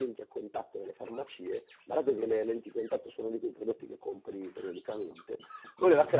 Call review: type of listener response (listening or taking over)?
listening